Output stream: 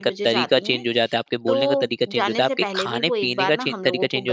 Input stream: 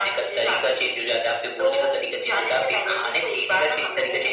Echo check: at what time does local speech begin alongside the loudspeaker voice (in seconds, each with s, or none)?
none